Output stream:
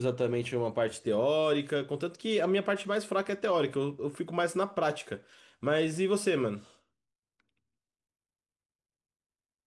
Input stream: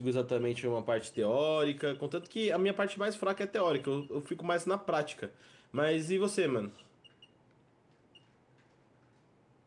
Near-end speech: none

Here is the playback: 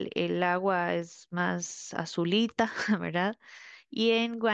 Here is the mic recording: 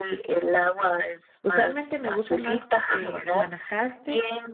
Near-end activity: present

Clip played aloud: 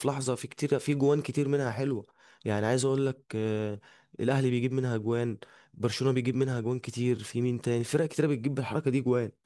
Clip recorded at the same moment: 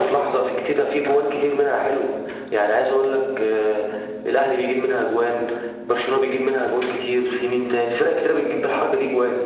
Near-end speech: none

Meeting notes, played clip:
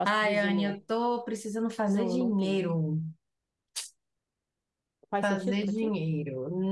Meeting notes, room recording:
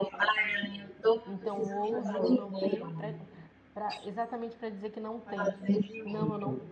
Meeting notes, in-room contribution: present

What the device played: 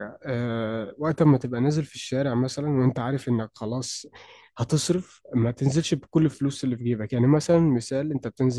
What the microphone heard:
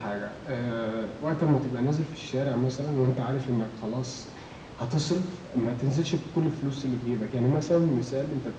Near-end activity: none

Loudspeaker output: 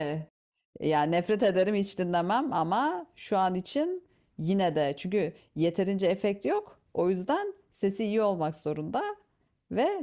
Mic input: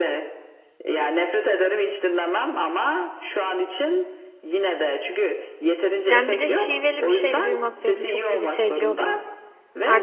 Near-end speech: present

